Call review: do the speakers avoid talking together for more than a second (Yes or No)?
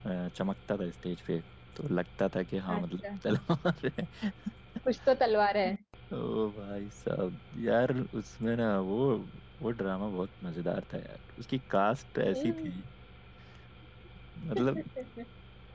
Yes